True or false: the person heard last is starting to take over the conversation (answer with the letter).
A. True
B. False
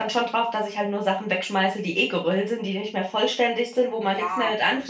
A